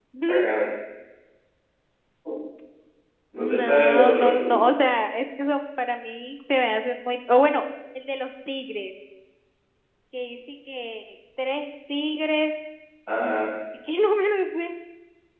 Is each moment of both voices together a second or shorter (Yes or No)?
No